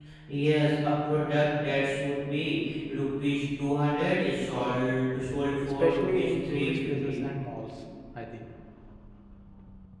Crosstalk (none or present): present